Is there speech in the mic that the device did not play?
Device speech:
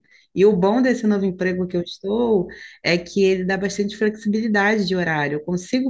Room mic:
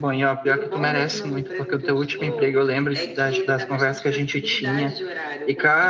Yes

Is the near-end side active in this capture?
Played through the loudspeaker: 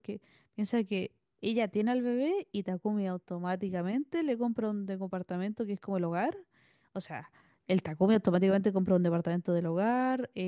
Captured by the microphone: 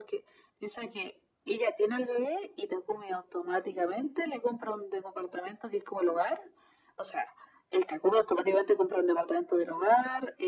No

